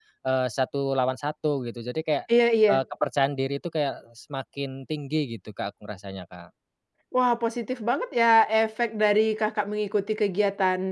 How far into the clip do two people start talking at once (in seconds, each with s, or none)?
none